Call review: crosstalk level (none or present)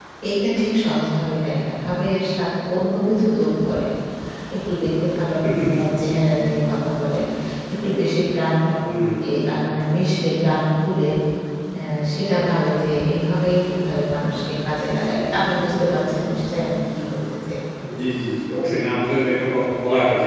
none